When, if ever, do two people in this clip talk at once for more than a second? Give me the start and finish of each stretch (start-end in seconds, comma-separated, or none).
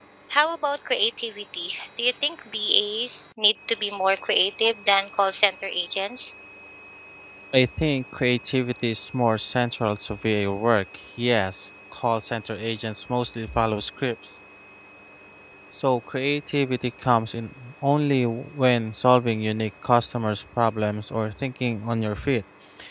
none